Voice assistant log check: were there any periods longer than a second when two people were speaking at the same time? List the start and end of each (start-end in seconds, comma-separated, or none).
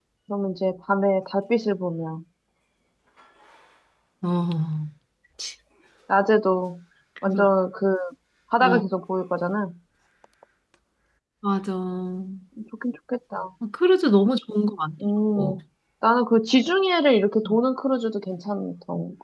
none